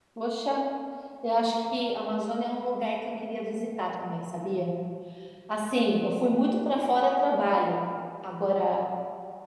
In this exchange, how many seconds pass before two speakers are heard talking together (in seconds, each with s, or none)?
none